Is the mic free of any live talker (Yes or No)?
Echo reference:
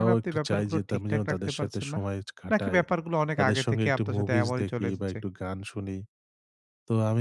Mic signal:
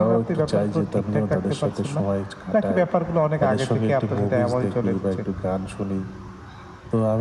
Yes